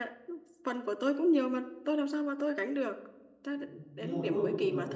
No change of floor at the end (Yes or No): No